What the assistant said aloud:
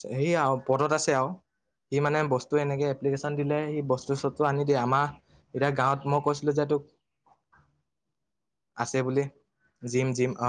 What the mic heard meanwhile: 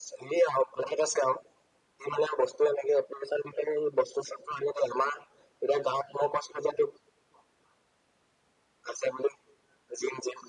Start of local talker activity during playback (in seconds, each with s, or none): none